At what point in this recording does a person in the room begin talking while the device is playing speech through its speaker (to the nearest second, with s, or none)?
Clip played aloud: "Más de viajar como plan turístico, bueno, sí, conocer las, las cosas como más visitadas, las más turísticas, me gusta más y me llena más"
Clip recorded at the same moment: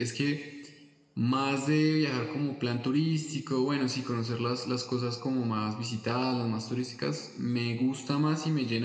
none